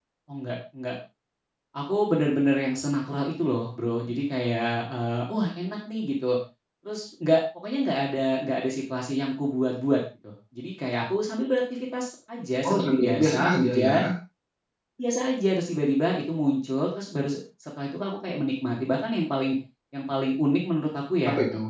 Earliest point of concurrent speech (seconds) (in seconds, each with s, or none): 12.7 s